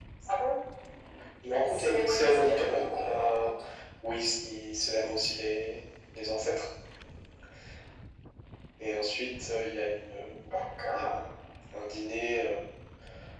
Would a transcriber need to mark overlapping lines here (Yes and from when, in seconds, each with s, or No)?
Yes, from 1.5 s